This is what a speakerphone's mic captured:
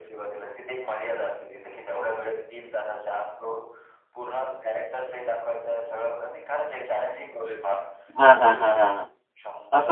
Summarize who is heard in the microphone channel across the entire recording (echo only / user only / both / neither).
both